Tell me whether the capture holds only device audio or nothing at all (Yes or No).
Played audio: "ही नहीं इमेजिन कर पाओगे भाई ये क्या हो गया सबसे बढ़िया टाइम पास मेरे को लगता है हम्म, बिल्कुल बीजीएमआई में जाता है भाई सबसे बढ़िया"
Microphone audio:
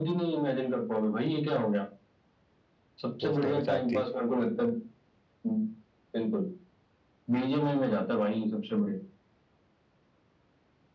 No